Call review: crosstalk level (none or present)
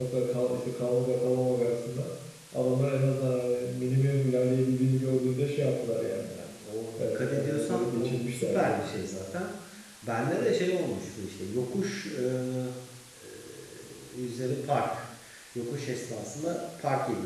present